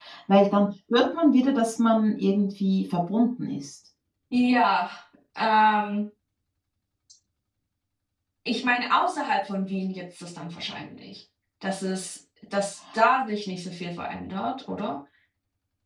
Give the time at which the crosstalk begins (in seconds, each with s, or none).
none